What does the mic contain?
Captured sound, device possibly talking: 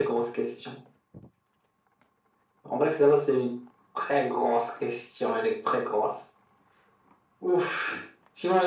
echo only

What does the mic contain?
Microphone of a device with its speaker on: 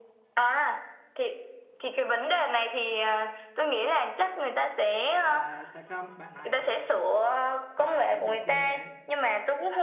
both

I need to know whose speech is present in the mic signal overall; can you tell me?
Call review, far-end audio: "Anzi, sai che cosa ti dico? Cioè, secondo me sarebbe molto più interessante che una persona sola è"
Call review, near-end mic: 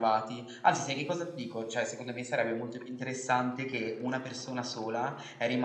echo only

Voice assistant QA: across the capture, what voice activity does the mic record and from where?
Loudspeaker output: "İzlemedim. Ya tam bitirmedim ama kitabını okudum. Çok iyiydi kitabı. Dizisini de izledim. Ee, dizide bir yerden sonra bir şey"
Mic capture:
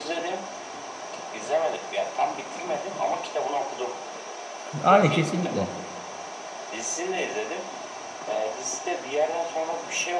both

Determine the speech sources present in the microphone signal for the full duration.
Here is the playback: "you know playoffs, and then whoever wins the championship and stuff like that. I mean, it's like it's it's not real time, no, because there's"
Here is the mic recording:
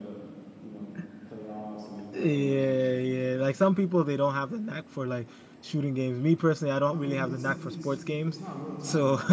both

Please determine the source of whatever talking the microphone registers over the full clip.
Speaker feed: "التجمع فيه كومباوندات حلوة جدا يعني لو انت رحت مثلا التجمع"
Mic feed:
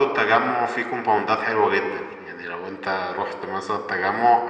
echo only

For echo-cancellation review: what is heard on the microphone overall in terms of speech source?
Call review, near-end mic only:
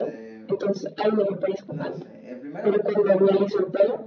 both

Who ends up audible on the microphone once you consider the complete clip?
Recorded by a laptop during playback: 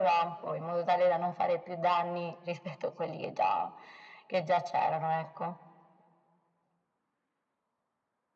echo only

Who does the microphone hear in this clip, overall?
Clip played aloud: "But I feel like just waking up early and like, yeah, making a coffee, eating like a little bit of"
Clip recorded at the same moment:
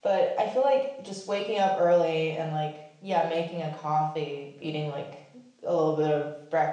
echo only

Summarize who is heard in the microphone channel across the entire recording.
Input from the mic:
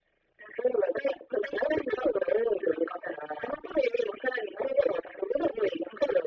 echo only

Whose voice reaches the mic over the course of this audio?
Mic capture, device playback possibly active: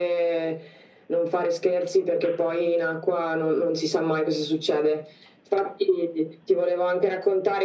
echo only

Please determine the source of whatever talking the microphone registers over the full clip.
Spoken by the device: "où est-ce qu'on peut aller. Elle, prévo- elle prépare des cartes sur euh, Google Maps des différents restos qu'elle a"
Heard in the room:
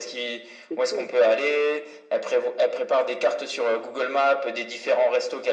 both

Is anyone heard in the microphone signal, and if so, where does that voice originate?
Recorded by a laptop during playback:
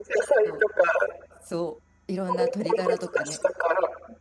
both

